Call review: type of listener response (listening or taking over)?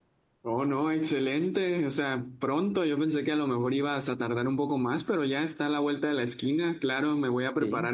listening